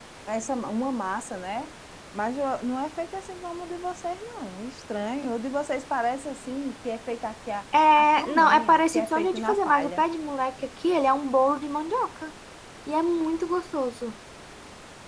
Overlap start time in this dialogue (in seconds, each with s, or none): 7.7 s